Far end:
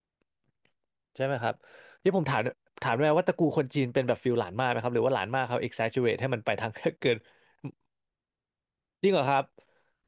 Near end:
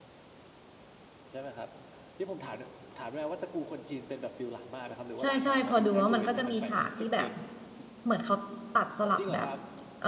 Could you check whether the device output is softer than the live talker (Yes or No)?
Yes